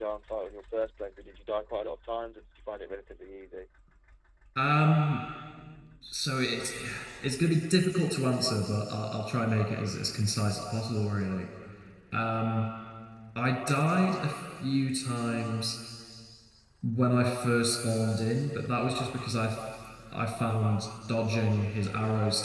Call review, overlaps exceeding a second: none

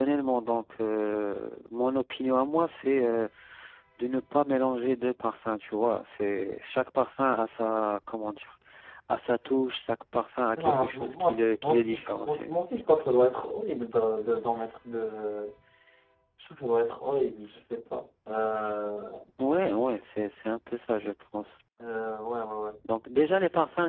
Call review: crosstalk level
present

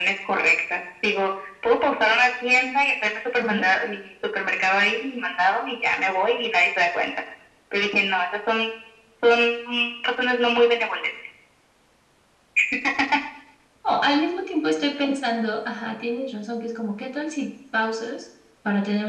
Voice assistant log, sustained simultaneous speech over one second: none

